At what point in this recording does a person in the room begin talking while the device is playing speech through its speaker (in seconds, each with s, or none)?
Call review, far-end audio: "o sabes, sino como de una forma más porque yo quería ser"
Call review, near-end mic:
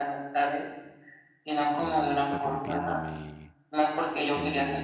1.8 s